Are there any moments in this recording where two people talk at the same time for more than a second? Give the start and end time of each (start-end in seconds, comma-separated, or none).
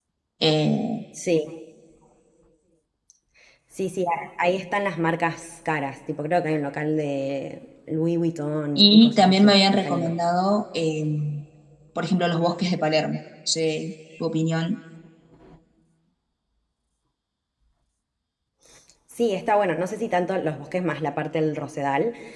8.8-10.1